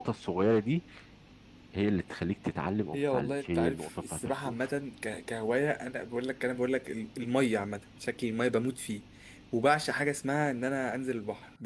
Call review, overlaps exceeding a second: present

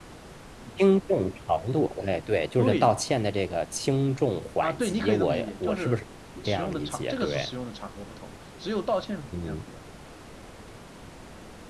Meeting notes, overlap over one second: present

